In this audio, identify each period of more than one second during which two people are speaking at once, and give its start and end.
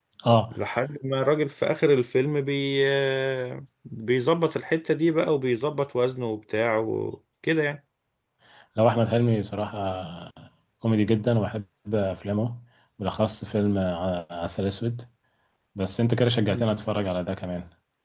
none

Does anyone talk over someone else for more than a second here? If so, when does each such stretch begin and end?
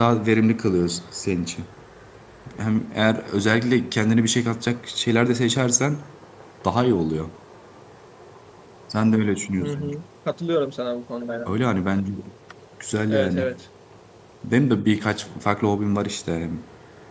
none

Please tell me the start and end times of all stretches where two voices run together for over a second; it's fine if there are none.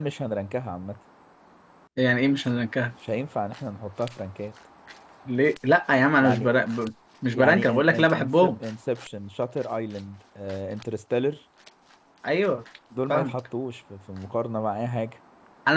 7.3-8.5

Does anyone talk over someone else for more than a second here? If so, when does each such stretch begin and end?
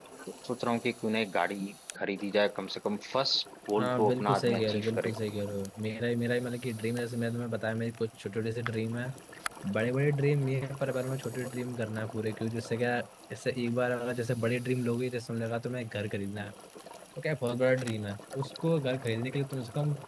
3.8-5.1

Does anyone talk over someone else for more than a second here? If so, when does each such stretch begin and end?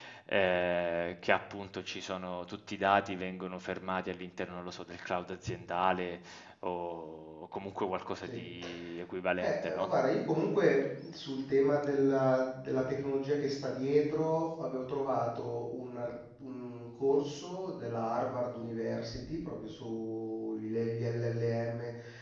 none

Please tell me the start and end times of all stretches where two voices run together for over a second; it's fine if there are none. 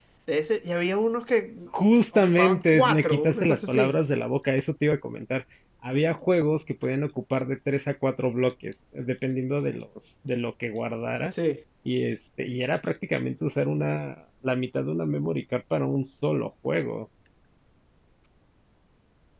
2.1-4.0

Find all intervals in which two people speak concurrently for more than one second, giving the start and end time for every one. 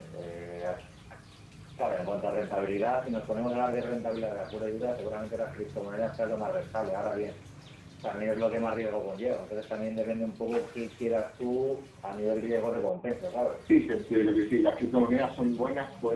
none

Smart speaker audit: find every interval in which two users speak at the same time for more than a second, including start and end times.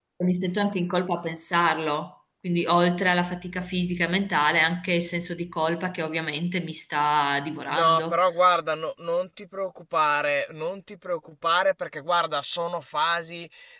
none

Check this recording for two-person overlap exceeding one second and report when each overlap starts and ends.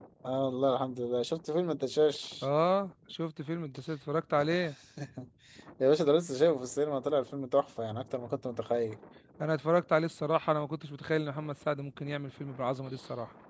none

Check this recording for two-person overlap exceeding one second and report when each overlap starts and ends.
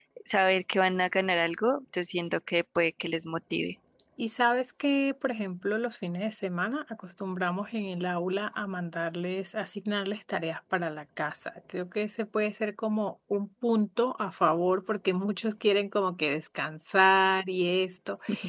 none

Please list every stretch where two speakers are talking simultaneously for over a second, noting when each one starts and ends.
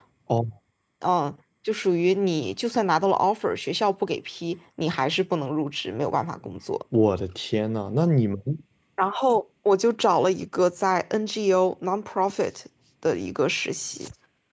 none

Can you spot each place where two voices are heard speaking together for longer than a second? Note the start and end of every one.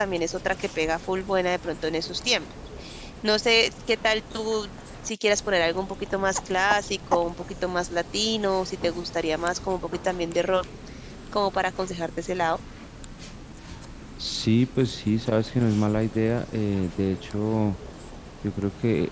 none

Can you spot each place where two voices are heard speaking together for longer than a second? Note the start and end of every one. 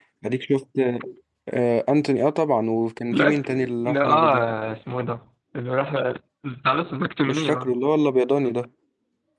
3.1-4.4

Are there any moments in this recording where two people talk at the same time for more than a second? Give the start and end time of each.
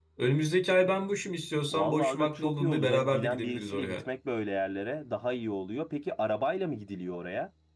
1.7-4.0

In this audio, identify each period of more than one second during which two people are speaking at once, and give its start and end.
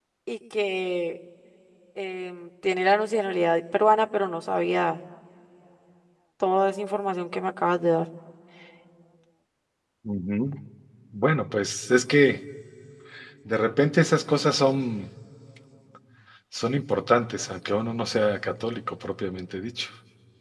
none

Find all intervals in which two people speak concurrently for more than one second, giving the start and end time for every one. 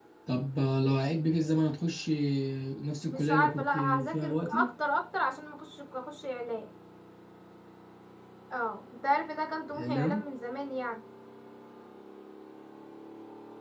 3.0-4.7

